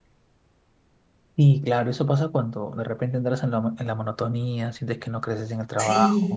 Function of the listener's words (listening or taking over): taking over